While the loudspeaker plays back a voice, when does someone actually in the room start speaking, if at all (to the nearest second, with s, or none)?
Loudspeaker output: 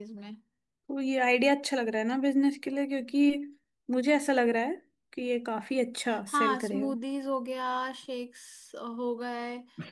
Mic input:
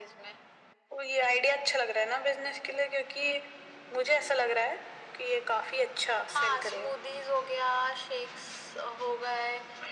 none